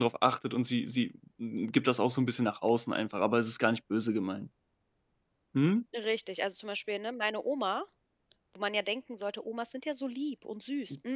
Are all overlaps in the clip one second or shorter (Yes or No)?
Yes